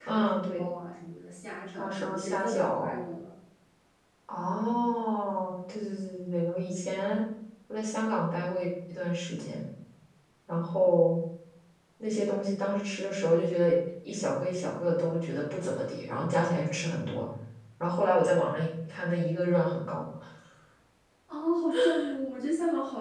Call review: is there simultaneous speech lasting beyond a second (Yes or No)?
Yes